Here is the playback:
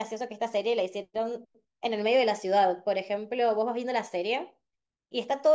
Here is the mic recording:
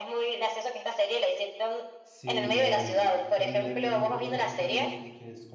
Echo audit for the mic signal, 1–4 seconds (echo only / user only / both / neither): both